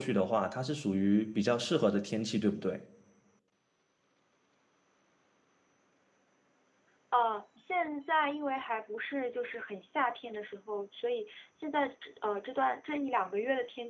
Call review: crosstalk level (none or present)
none